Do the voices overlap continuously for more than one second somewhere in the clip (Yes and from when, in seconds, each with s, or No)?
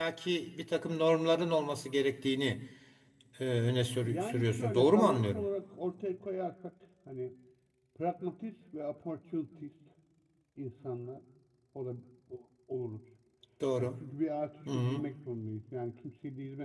Yes, from 4.0 s